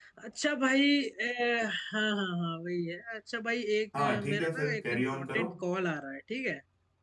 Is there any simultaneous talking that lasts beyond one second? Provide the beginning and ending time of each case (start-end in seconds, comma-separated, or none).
4.0-5.5